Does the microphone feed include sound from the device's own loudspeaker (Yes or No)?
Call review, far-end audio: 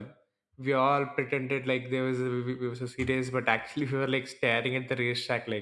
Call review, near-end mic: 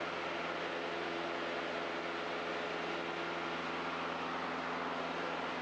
No